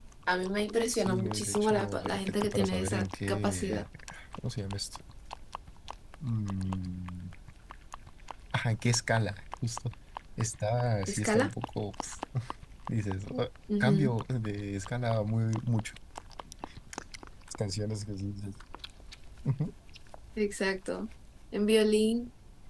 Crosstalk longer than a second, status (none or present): present